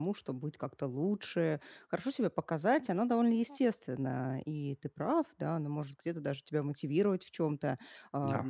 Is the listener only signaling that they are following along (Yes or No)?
Yes